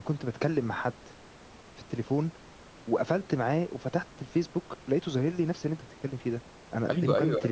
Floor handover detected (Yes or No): Yes